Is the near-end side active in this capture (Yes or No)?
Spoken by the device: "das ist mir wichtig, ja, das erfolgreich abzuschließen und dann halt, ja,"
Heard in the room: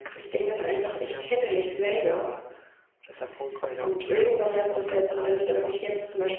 Yes